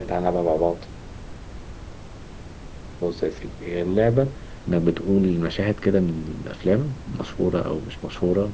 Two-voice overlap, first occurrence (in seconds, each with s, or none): none